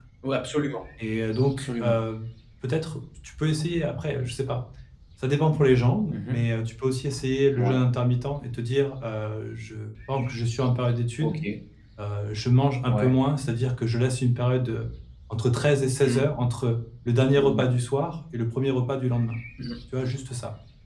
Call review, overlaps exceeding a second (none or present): none